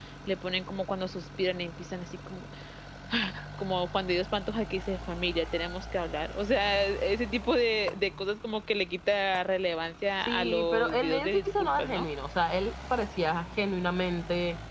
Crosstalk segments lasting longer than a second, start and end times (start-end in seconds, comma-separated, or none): 10.3-12.1